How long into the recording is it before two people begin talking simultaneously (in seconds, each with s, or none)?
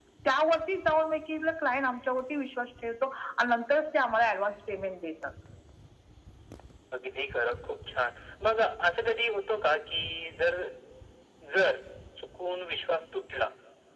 none